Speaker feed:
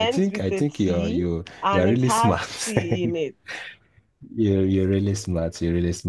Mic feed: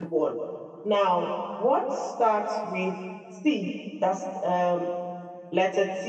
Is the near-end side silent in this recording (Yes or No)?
No